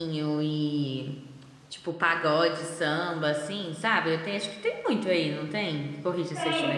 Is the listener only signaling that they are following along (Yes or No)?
No